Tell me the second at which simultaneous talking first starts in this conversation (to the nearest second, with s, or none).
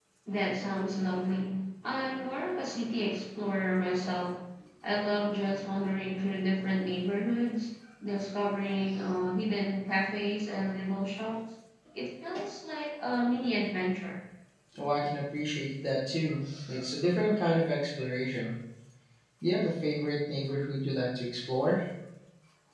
none